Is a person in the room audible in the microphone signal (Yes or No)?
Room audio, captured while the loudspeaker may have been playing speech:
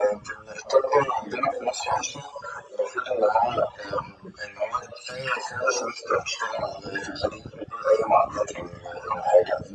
No